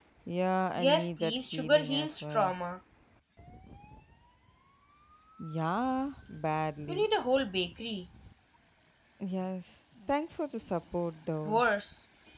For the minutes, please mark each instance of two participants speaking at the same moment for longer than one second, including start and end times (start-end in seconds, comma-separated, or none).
0.8-2.5